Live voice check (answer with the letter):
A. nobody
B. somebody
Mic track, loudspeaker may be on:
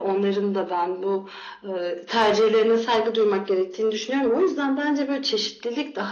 A